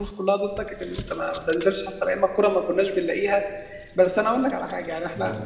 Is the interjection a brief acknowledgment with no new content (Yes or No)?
Yes